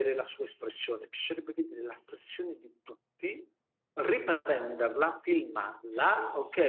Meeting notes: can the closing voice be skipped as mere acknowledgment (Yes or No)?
Yes